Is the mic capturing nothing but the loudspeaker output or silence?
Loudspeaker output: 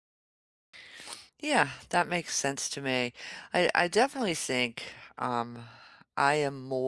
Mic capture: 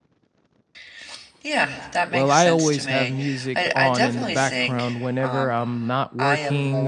No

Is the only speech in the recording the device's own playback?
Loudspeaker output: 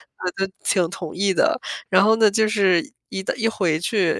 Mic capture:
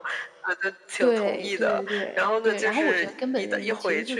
No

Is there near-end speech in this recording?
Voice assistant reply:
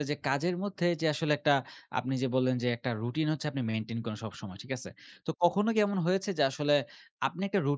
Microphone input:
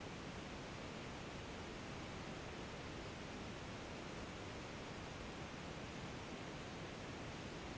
No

